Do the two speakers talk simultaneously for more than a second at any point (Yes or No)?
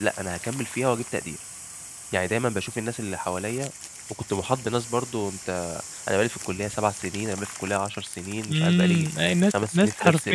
Yes